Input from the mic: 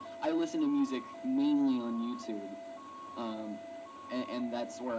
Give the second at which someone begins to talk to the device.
none

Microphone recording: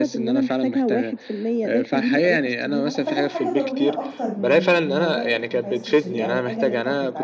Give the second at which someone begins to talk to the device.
2.9 s

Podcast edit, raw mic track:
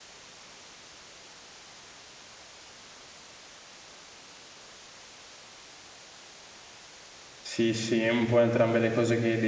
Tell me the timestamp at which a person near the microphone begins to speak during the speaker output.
7.4 s

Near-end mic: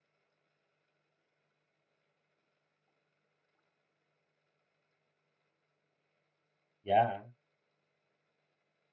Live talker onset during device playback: 6.8 s

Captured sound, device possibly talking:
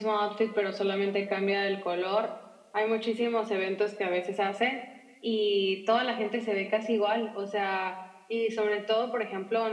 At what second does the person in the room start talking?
none

